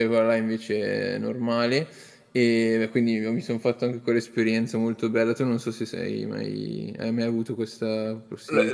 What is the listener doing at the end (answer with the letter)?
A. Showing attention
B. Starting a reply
B